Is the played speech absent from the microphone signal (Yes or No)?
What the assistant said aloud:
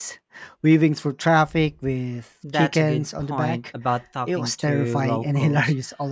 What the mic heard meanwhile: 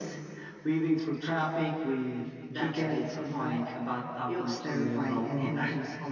No